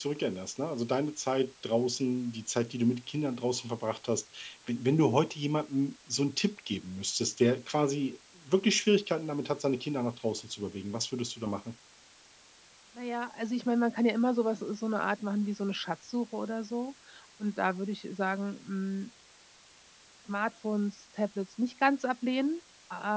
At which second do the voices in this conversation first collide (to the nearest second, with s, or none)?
none